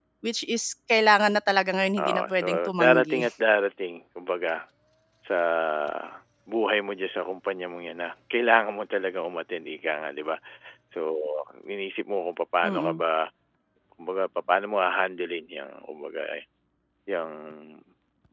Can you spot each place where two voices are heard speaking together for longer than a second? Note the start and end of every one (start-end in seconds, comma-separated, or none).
2.0-3.2